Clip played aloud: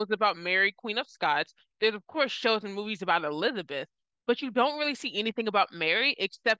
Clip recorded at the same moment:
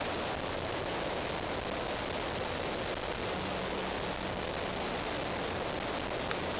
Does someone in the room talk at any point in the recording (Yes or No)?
No